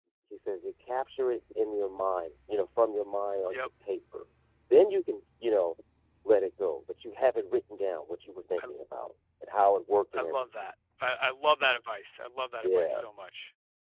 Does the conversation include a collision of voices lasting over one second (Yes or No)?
No